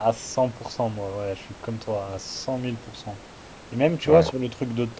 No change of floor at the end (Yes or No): Yes